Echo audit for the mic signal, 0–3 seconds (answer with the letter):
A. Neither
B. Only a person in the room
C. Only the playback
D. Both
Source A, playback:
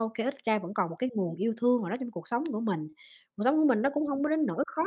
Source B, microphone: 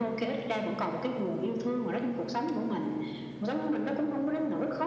C